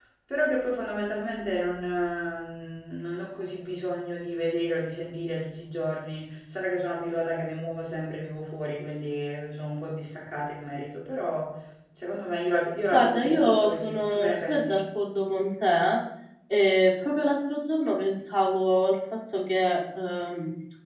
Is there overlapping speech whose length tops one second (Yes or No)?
Yes